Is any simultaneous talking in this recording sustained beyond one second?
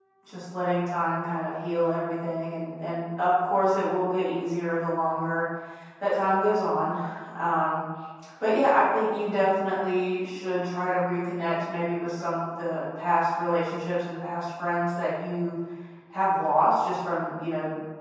No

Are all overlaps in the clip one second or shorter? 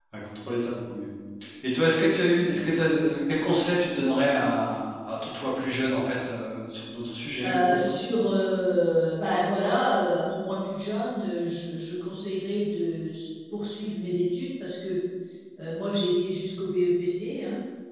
Yes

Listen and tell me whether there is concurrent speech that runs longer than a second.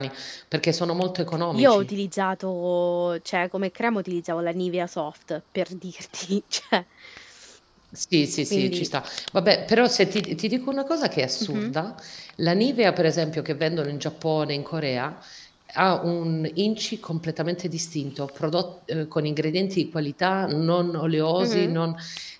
No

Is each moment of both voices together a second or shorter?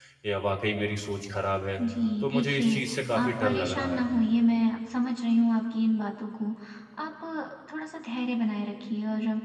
No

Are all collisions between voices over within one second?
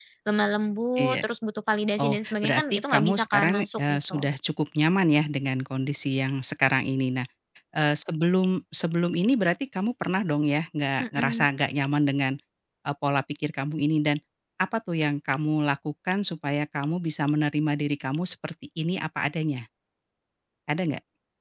No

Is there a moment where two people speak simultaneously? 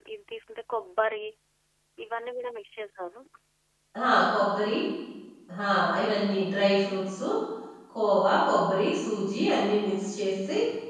No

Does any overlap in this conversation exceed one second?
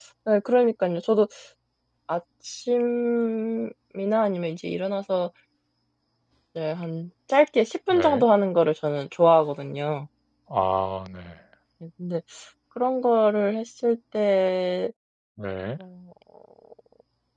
No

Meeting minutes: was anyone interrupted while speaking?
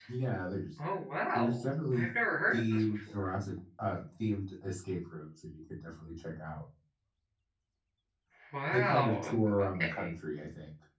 Yes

